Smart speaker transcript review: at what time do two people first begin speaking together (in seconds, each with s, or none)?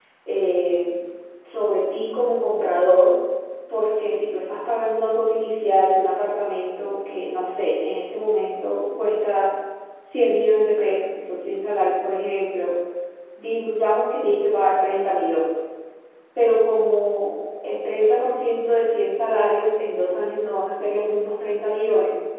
none